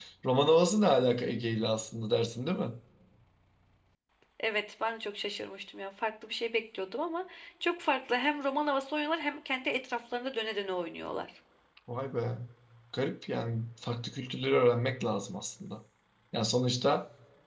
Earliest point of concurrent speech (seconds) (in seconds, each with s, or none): none